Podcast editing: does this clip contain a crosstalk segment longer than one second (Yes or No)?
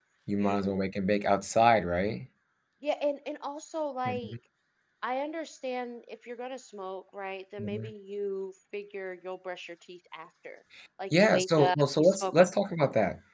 Yes